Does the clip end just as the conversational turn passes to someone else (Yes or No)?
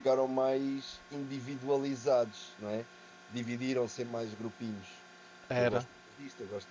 No